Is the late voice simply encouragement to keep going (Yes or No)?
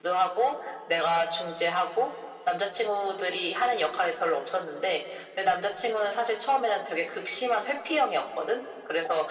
Yes